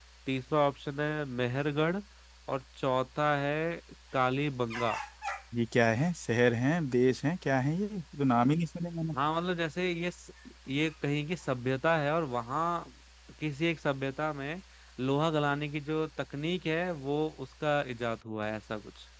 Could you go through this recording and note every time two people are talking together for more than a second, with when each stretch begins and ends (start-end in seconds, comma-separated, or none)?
none